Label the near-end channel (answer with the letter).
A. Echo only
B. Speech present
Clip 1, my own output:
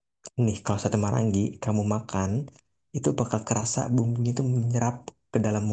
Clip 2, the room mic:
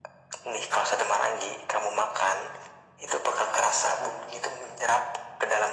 A